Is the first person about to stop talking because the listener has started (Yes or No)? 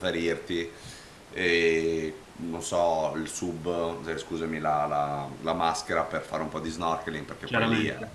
No